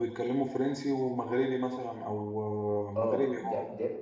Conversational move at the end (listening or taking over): taking over